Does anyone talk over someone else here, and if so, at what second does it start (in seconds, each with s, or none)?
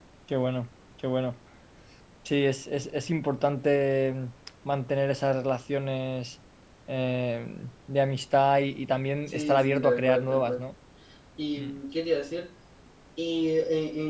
9.3 s